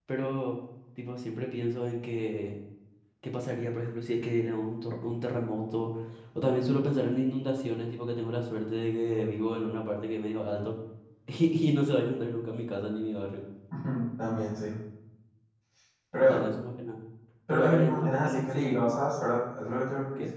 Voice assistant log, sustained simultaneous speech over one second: present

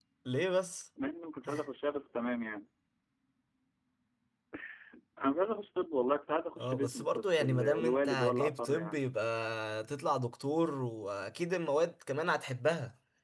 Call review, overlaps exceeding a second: present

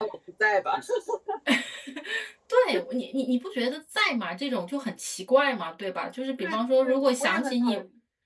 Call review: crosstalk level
present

